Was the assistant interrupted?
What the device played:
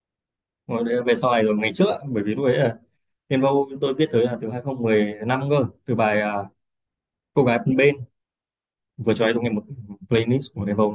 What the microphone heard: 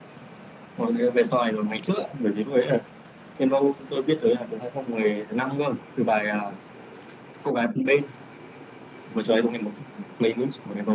No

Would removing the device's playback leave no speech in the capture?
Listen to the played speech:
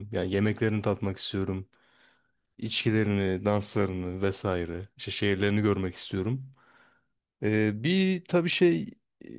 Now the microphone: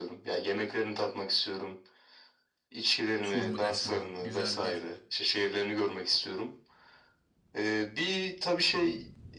No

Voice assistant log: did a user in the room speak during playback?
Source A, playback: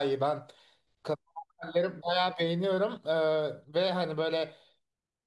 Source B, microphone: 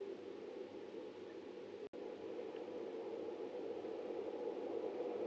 No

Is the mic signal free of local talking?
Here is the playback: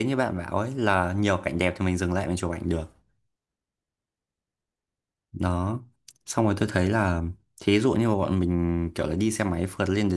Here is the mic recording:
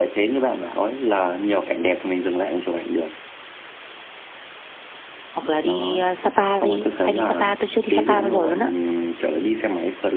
No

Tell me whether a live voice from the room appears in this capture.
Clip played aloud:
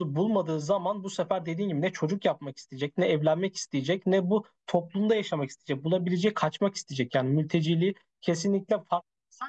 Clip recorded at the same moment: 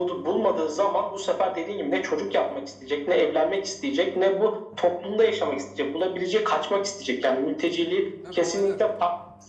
Yes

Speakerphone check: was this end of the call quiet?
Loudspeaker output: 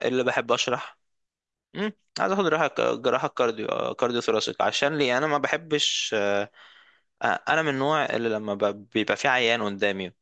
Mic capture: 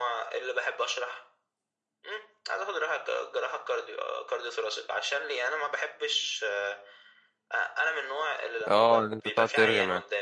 No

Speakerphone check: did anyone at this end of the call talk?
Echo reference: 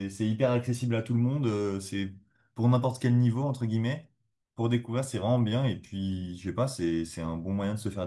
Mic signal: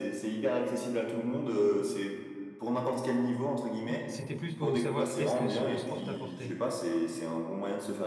Yes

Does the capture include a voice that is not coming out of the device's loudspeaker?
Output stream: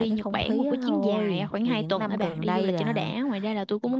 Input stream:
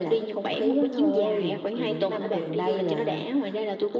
No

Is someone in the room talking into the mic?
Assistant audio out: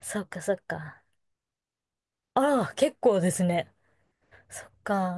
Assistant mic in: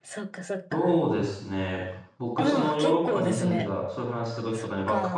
Yes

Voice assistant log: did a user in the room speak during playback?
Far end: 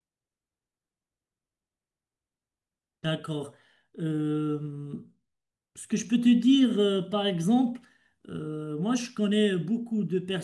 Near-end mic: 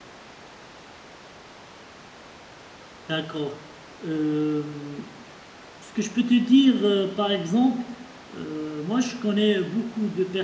No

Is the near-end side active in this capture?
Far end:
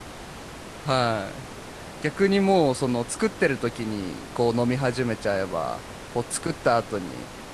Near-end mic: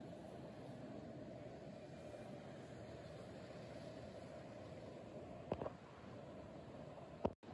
No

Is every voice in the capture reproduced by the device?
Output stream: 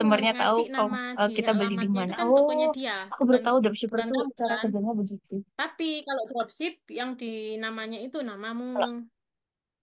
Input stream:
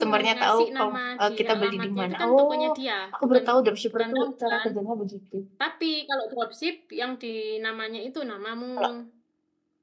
Yes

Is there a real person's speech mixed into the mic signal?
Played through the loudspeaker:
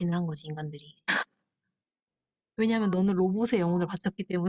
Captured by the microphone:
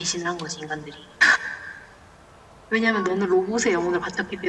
No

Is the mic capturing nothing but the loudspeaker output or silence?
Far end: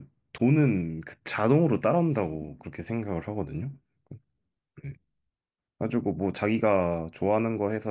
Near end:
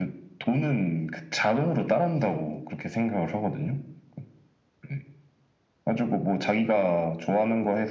Yes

